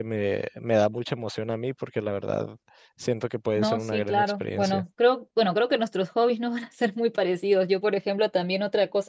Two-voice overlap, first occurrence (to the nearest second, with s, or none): 4 s